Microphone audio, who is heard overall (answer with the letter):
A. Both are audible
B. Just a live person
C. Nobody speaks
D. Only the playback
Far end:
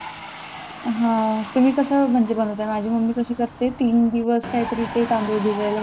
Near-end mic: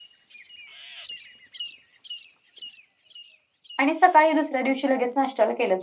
B